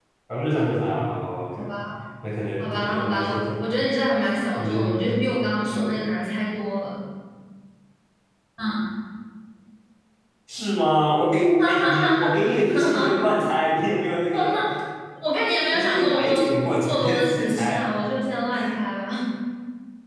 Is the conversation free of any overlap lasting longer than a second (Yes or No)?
No